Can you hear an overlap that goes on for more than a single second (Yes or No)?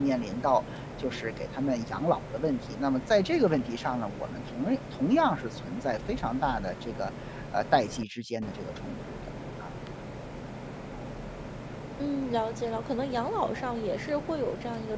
No